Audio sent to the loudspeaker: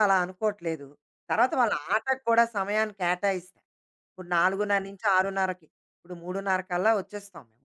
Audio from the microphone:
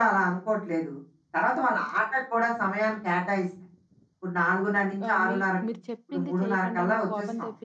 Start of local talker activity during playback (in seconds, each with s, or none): 5.1 s